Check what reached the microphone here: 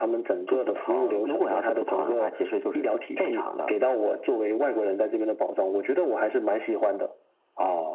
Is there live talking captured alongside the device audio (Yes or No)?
No